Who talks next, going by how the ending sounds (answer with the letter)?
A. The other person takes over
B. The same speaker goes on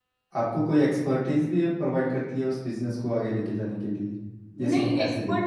A